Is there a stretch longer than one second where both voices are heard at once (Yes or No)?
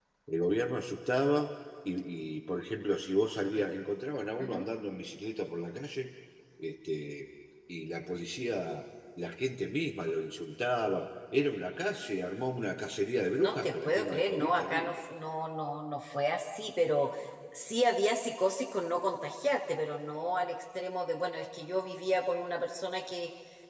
Yes